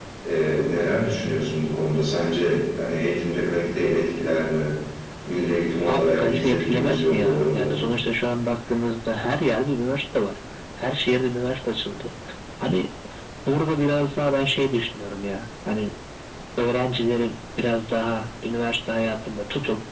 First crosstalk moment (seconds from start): 5.9 s

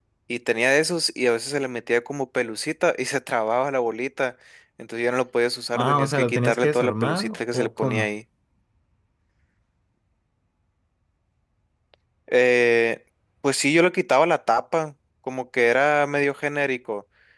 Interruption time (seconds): 5.7 s

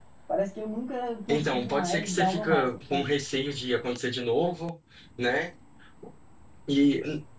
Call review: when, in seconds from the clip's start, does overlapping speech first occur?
1.3 s

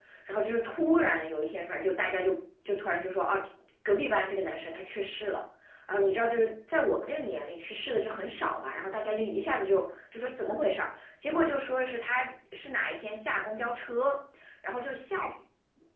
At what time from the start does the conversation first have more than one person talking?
none

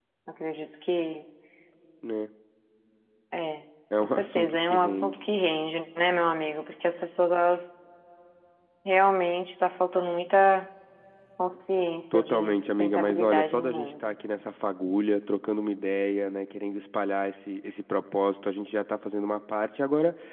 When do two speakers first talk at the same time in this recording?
4.0 s

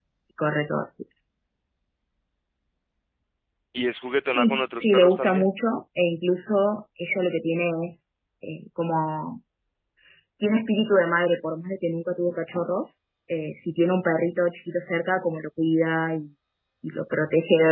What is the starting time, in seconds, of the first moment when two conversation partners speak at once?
4.2 s

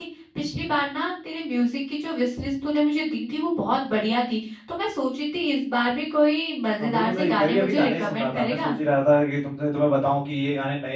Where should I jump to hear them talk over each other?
6.8 s

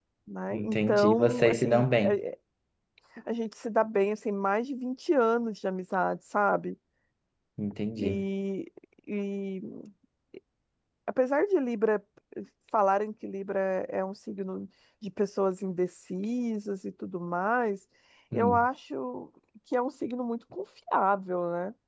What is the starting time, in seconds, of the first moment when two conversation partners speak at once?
0.5 s

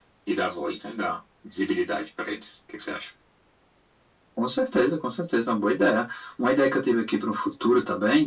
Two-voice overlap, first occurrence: none

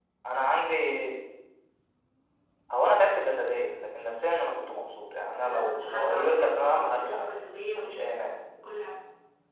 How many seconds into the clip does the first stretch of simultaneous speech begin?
5.4 s

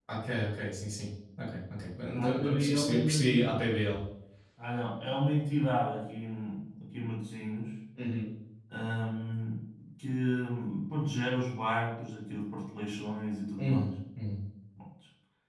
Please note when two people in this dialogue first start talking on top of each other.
2.2 s

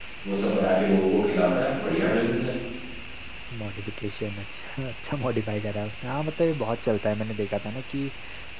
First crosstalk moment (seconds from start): none

